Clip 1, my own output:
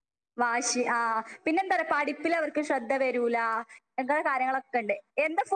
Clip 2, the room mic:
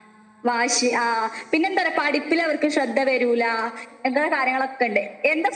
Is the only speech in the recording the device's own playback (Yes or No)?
Yes